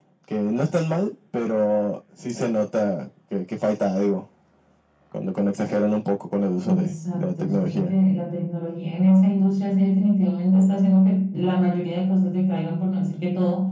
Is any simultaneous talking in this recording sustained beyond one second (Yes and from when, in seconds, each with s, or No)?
Yes, from 6.6 s